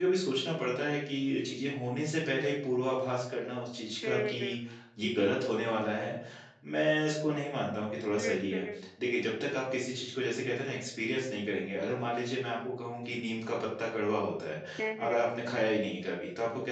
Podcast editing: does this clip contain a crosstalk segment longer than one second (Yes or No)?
No